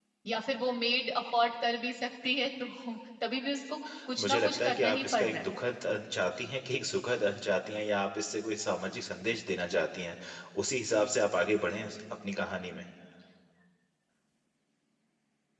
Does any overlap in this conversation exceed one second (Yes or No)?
Yes